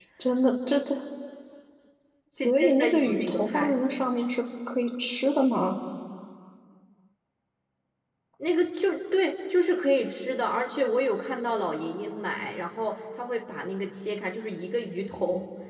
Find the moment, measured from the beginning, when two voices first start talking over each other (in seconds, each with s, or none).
2.3 s